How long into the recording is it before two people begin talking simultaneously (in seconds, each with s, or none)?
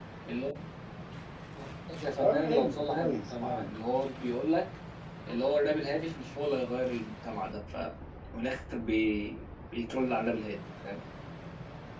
2.2 s